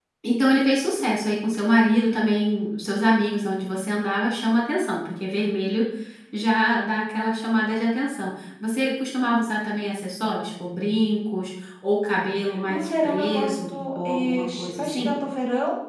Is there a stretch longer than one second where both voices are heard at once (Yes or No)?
Yes